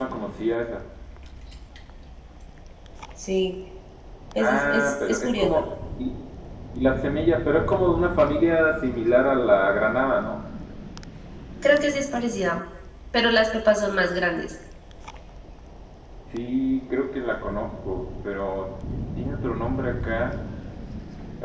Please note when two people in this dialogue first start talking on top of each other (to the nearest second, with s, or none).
4 s